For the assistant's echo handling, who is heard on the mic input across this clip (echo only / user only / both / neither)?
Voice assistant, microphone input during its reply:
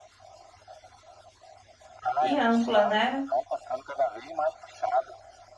both